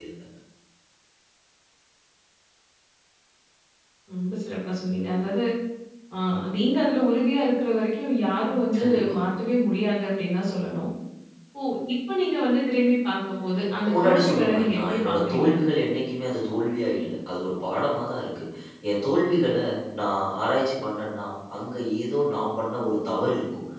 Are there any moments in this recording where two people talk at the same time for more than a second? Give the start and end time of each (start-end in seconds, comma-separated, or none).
13.9-15.5